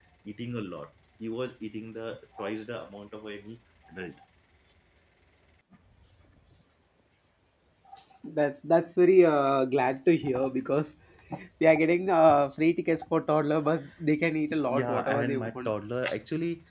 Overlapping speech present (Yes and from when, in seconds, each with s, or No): Yes, from 14.5 s